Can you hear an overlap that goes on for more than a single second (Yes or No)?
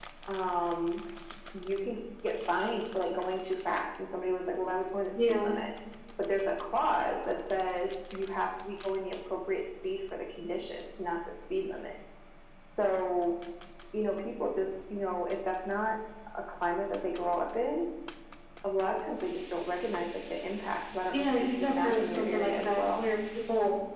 Yes